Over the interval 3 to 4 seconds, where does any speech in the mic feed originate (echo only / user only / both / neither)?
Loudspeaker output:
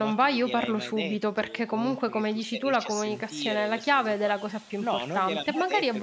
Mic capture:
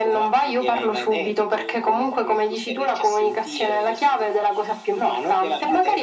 echo only